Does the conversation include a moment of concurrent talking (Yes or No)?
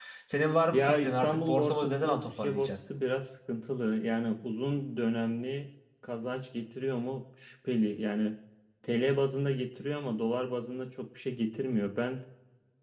Yes